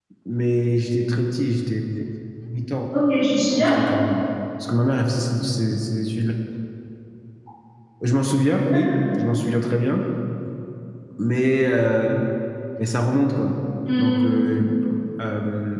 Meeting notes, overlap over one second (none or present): none